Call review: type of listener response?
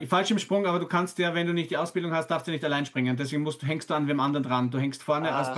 taking over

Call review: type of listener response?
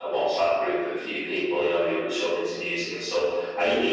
listening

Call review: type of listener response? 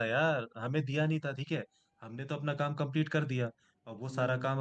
listening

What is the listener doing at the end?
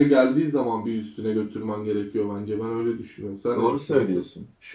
taking over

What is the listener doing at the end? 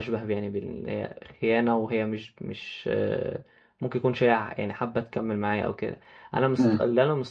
listening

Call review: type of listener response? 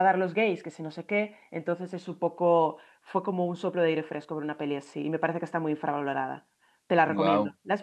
taking over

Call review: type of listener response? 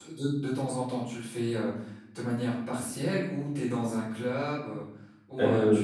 taking over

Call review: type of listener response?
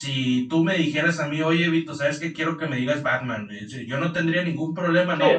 listening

